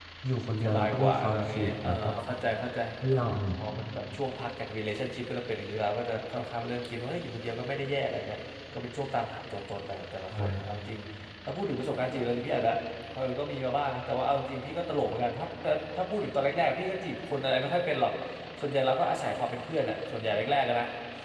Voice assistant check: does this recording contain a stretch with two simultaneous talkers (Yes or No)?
Yes